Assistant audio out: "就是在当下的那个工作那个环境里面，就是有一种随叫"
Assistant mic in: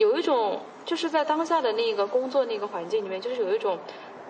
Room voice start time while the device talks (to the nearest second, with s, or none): none